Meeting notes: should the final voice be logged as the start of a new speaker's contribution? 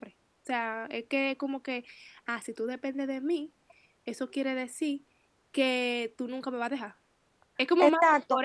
Yes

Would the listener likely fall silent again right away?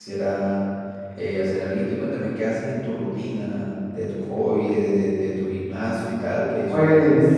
No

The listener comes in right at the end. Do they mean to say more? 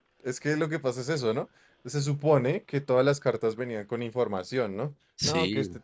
No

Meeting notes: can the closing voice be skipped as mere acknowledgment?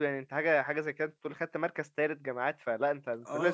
No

